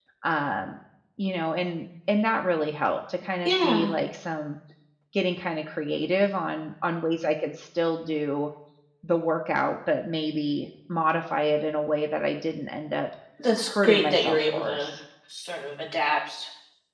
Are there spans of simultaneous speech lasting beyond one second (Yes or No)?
Yes